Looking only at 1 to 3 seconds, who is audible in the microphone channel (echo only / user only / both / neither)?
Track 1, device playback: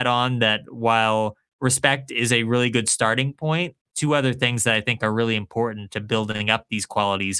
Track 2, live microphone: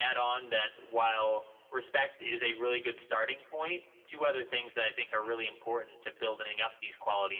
echo only